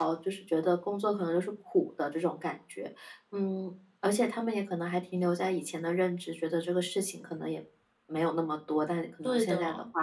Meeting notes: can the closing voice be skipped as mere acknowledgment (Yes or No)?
Yes